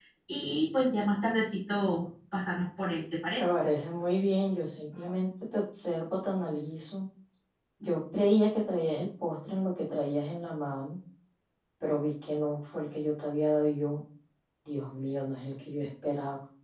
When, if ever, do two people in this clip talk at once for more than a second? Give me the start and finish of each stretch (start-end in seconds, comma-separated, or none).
none